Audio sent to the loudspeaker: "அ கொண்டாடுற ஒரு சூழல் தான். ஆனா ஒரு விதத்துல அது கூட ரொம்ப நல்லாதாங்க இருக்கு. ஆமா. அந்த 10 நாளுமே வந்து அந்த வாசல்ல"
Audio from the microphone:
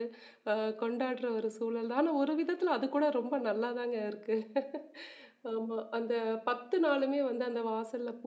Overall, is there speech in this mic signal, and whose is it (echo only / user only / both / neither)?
echo only